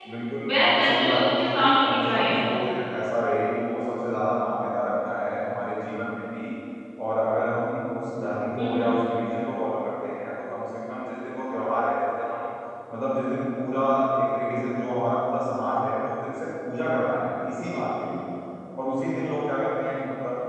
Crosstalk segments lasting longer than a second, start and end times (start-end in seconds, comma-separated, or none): 0.6-2.3